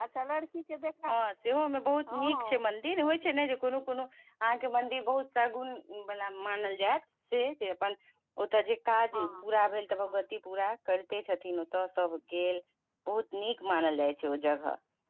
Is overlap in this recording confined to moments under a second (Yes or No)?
Yes